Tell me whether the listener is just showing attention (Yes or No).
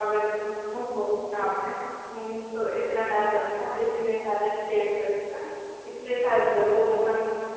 Yes